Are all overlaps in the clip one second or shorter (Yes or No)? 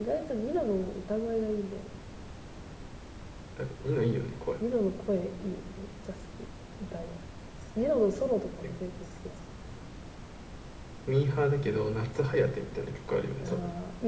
Yes